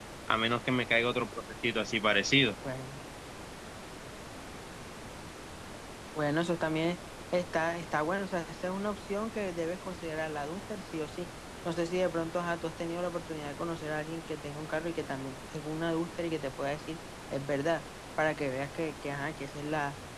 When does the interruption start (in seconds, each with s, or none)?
none